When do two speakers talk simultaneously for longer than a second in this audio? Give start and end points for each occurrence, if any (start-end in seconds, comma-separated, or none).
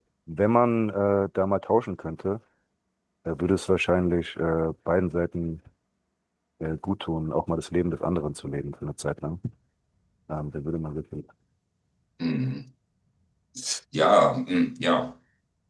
none